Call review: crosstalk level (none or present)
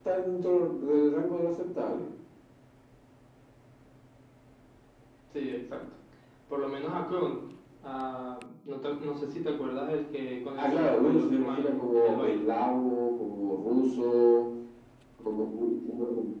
present